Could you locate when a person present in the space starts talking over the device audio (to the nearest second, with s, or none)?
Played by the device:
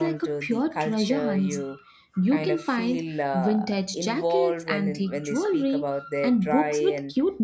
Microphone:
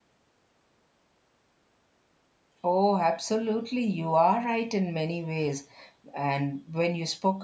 3 s